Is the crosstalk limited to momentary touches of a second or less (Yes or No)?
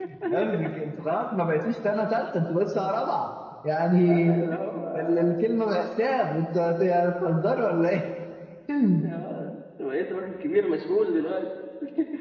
Yes